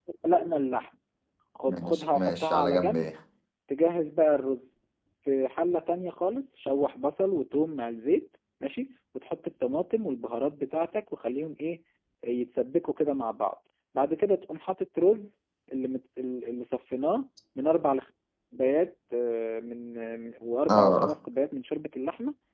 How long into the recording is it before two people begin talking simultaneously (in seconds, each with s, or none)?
1.7 s